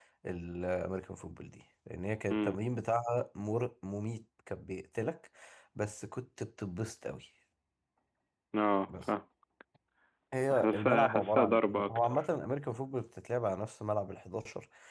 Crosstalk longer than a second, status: present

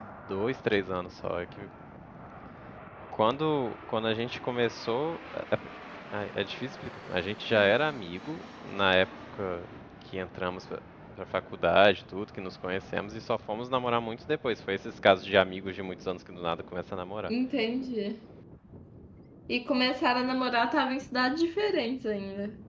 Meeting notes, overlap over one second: none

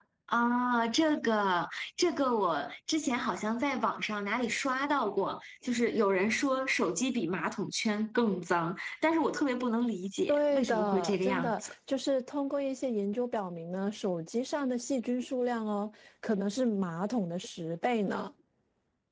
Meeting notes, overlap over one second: present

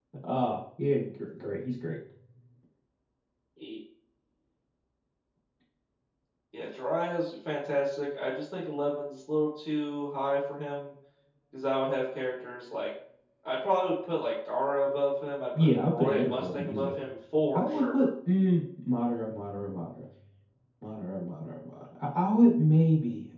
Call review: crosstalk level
present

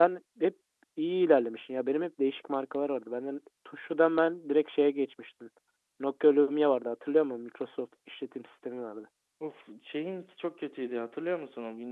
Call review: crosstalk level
none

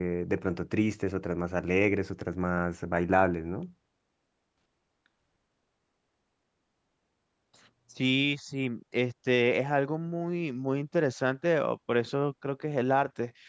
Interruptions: none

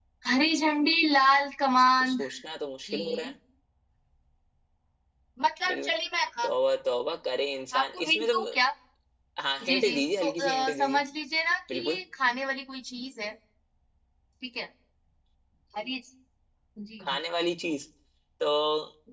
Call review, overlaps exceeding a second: present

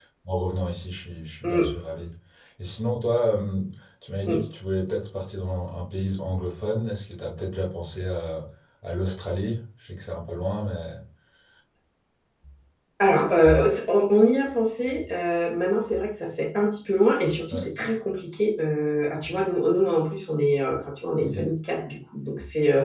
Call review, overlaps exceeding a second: none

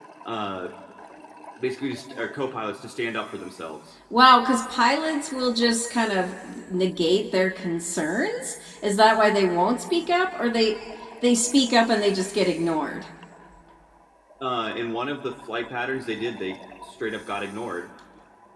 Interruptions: none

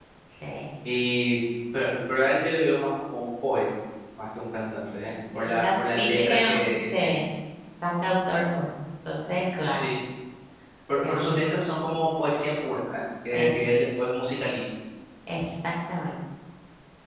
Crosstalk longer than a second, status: present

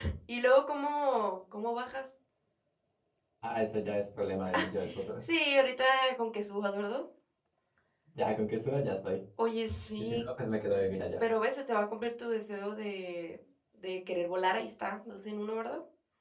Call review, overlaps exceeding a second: none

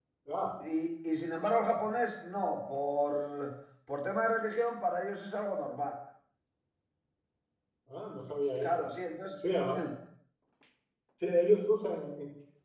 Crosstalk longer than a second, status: none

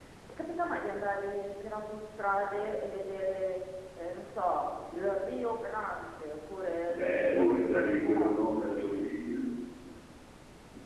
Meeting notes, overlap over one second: present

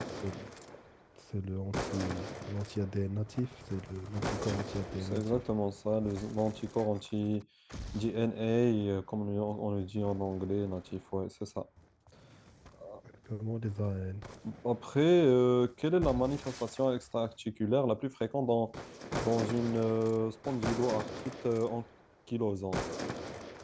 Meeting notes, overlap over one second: none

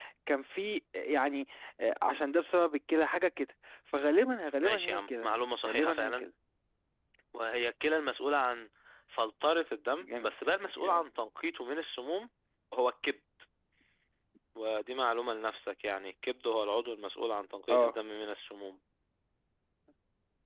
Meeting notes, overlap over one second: present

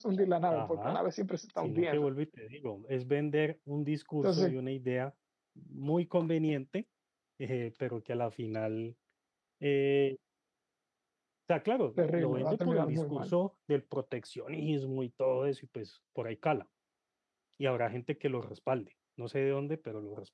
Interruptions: present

